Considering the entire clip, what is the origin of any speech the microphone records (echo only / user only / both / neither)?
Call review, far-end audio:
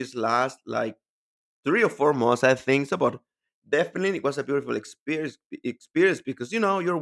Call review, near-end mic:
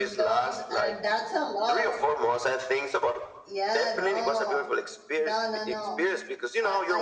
both